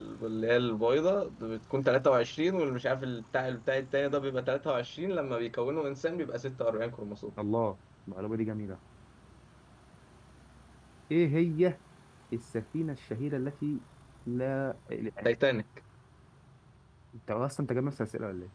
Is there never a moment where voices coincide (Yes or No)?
Yes